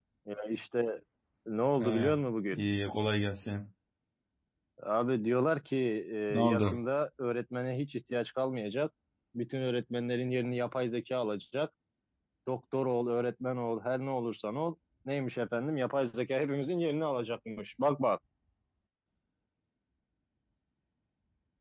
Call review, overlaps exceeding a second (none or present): none